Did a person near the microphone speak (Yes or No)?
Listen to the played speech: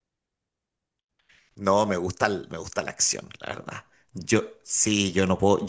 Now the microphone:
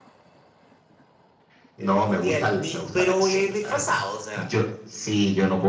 Yes